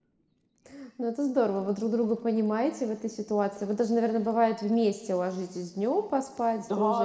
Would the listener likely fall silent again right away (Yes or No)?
No